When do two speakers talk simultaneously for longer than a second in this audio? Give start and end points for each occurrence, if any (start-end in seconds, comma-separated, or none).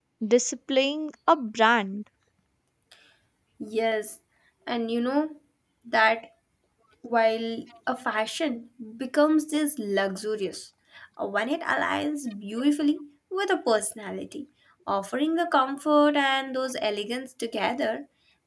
none